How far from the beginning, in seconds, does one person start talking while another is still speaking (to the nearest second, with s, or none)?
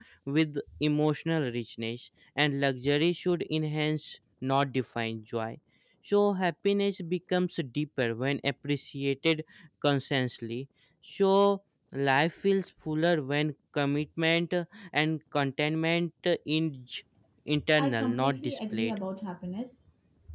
18 s